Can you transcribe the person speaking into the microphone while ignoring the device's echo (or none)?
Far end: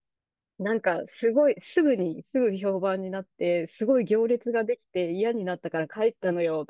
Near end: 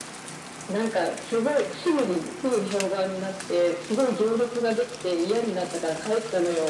none